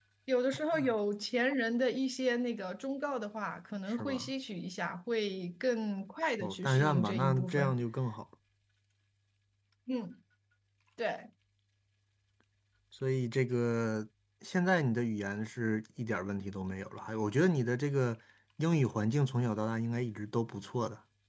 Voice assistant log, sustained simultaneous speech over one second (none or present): present